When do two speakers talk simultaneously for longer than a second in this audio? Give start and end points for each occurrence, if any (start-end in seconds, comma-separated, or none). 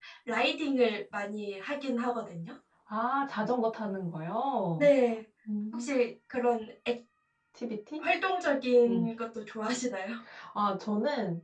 none